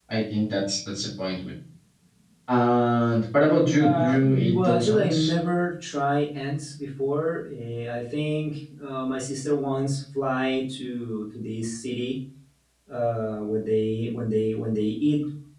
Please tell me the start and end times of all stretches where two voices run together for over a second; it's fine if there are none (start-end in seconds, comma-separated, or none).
3.8-5.3